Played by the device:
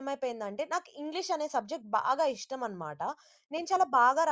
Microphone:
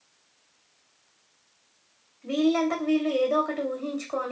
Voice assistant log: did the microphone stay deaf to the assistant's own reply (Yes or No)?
Yes